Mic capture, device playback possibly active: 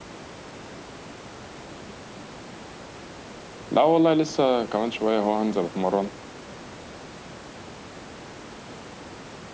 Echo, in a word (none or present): none